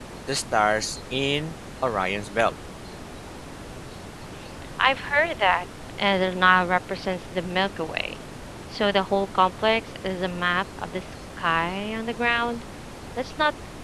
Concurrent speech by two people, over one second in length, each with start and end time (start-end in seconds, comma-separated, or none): none